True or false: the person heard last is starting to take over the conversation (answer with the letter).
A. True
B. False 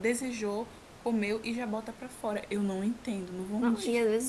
A